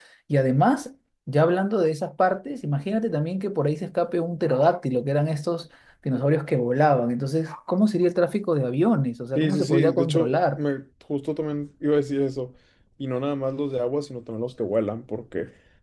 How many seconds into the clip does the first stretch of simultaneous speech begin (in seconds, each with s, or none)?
9.3 s